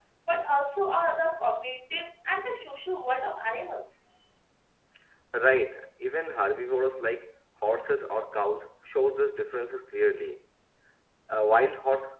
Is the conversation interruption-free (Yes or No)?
Yes